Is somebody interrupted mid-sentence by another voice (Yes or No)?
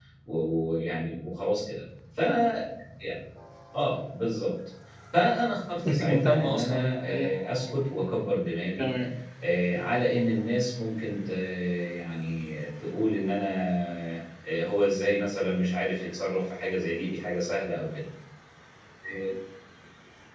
Yes